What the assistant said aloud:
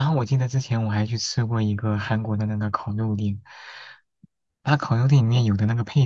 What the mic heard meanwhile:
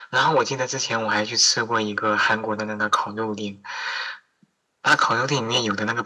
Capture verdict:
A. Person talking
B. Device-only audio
B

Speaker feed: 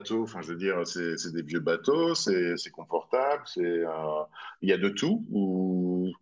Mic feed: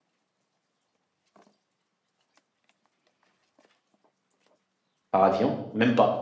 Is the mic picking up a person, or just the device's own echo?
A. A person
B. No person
A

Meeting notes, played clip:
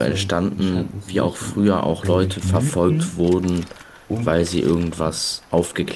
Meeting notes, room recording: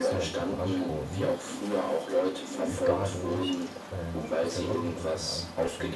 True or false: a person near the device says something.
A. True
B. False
A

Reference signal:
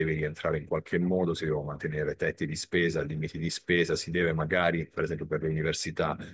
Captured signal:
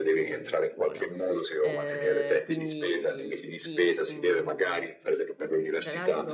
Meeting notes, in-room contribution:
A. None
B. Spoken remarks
B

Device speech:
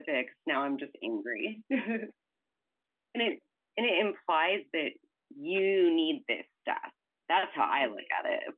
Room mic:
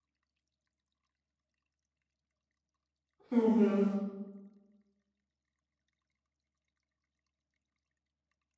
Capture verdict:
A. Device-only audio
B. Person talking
B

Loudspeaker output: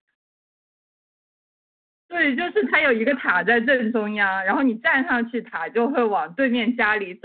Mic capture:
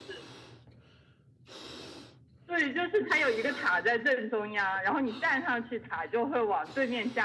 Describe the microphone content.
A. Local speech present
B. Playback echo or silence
B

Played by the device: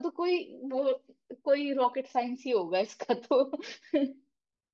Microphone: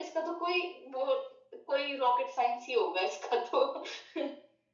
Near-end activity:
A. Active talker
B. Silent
B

